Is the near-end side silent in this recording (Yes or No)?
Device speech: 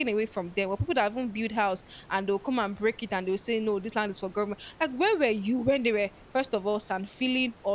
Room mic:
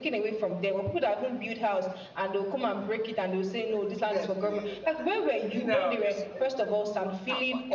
No